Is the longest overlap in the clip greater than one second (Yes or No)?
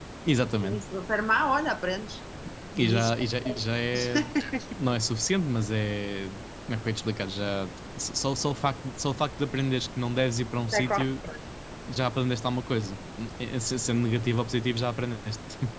No